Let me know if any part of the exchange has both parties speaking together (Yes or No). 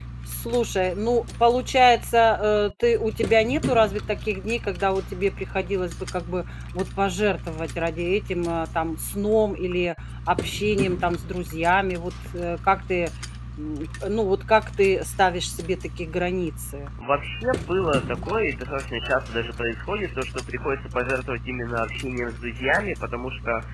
No